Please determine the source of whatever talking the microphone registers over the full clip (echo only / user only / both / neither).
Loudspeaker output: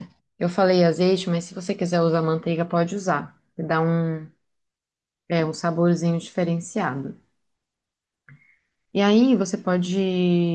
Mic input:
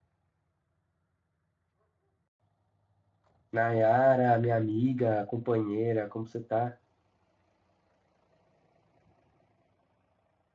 user only